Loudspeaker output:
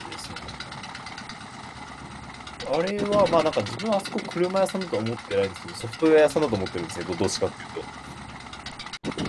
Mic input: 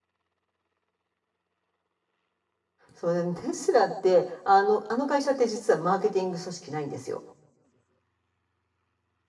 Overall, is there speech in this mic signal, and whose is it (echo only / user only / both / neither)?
user only